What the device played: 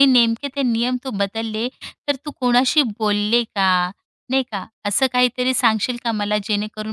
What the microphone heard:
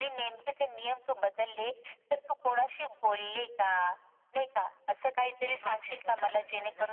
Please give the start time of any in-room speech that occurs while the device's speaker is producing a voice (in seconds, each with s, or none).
5.4 s